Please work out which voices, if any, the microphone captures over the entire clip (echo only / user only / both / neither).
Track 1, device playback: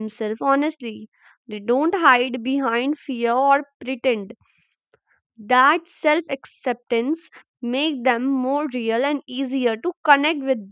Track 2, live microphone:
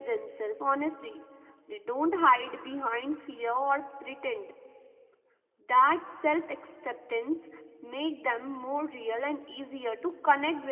echo only